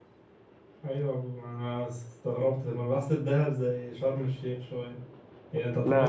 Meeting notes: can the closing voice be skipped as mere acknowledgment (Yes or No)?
Yes